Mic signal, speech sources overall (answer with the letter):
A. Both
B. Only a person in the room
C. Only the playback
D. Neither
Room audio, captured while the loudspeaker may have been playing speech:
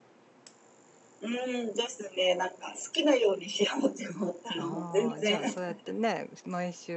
A